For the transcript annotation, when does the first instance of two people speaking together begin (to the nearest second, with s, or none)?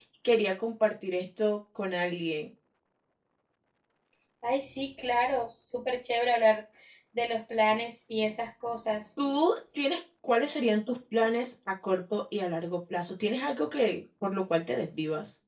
none